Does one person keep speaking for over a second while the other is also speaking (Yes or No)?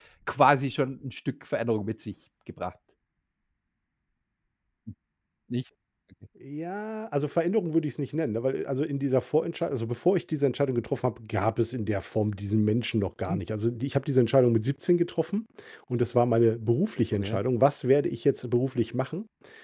No